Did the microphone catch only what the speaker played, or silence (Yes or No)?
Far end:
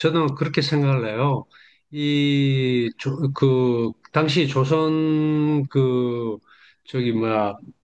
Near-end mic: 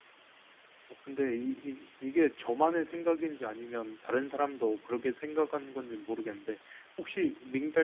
No